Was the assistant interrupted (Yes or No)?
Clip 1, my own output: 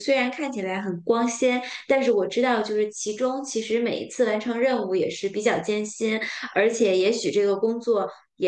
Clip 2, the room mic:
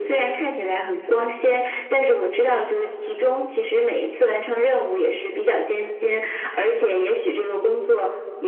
No